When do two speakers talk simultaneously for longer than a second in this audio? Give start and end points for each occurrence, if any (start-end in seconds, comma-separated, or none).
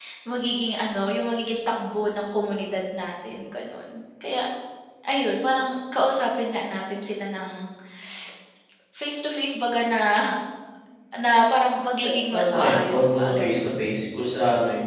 12.3-13.9